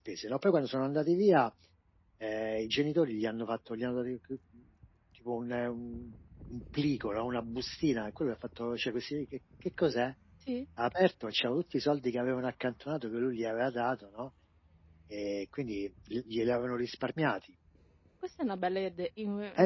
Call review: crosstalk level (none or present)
none